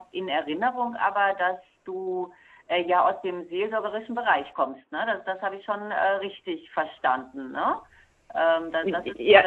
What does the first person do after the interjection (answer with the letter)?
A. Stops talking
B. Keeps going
A